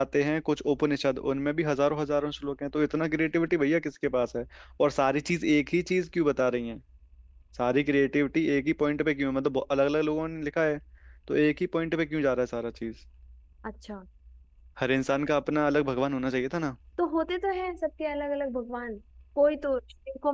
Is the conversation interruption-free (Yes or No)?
Yes